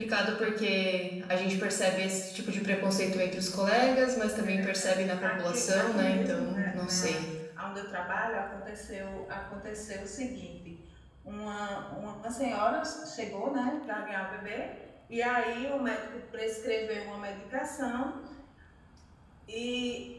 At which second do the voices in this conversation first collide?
4.4 s

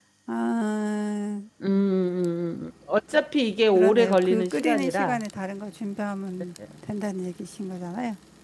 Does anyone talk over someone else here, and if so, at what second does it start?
3.7 s

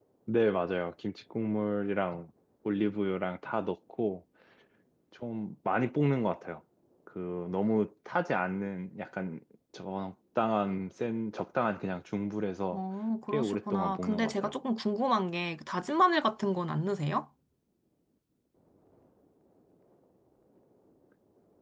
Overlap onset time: 13.3 s

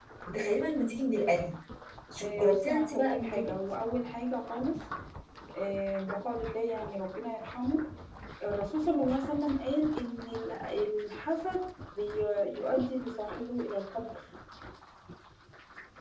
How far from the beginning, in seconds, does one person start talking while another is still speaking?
2.2 s

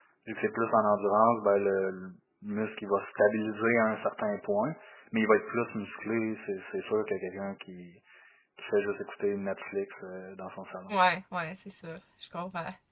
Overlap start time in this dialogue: none

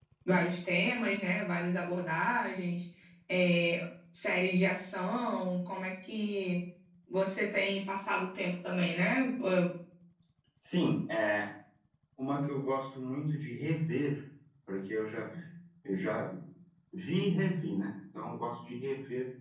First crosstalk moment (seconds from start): none

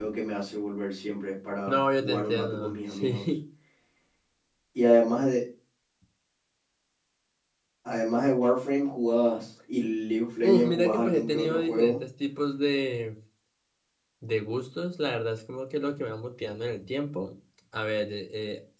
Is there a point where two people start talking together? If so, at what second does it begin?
1.7 s

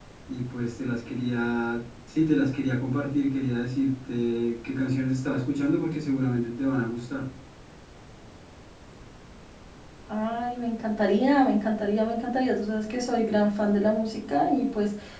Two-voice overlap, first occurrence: none

